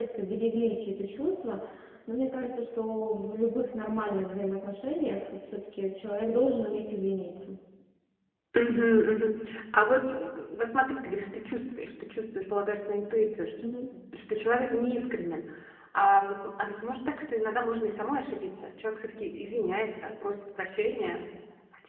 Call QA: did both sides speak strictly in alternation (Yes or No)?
Yes